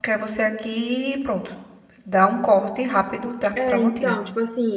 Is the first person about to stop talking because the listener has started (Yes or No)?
Yes